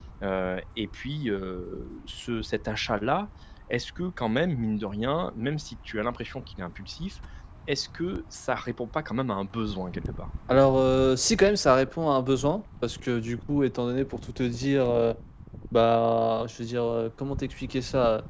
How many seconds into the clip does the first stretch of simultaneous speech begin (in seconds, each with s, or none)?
none